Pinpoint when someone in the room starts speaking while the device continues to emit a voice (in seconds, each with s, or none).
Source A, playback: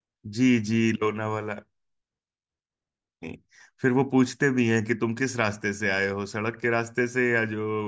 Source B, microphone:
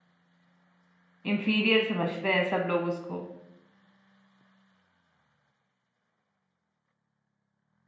1.3 s